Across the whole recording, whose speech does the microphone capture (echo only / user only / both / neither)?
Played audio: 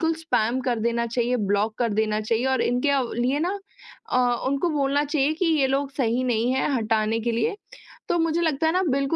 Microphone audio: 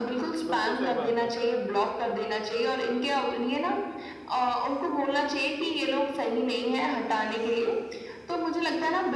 both